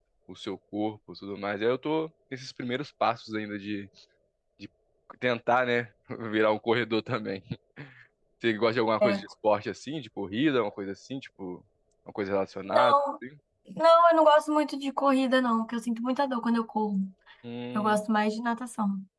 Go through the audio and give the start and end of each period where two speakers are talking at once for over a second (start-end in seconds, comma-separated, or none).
none